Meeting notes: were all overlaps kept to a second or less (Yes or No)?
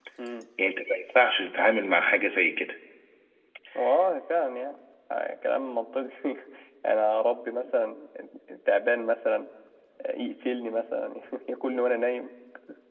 Yes